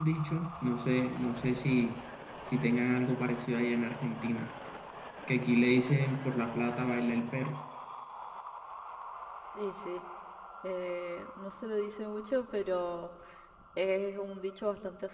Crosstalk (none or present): none